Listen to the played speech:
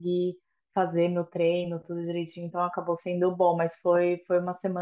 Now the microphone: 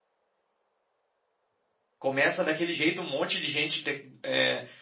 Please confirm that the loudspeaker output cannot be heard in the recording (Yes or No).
Yes